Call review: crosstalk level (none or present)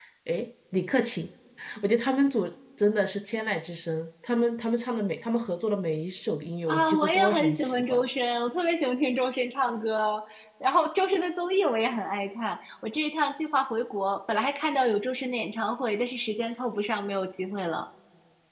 present